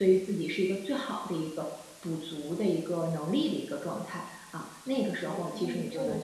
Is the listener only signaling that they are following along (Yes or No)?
No